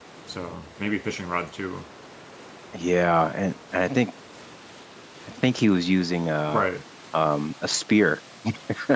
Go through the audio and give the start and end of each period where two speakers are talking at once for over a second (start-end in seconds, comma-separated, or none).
none